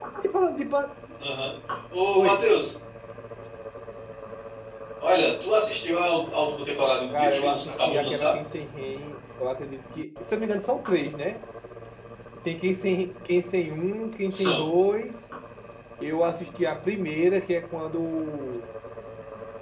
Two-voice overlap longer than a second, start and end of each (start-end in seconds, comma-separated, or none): 7.1-8.3